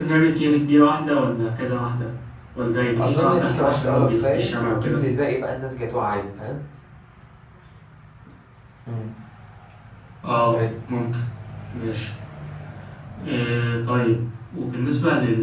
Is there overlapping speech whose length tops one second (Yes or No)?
Yes